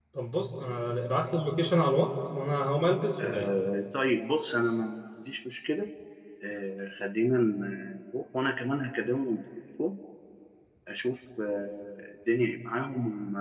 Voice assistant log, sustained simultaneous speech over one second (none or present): none